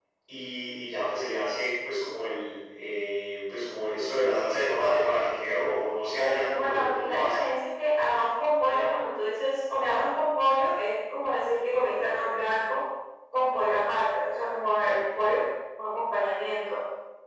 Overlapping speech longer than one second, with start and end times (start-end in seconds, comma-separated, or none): 6.2-7.5